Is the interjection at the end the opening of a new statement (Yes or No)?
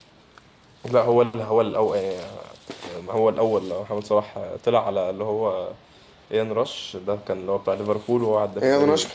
Yes